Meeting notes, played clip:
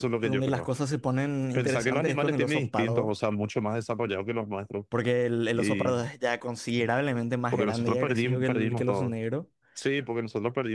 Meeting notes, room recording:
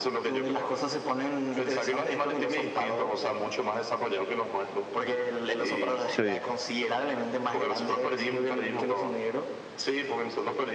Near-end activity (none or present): present